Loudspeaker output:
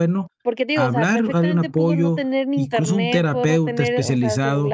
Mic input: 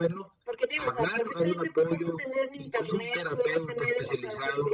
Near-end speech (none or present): none